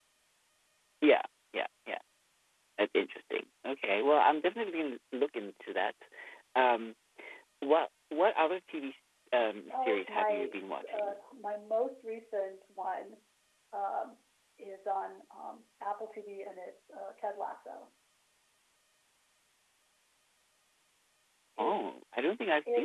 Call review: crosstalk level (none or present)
present